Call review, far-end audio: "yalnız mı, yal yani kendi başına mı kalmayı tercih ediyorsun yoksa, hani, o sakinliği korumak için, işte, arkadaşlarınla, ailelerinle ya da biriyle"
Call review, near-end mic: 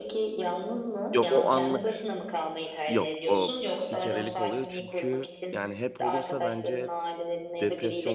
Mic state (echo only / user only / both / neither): both